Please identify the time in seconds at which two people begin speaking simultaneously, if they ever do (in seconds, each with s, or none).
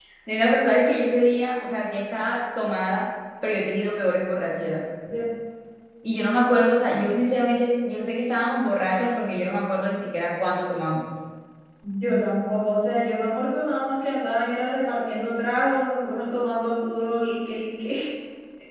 none